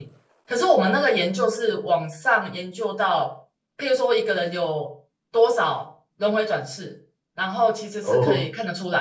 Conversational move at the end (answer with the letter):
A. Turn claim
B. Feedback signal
B